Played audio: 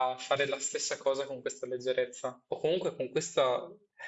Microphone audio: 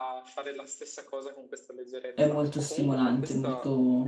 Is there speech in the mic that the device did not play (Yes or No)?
Yes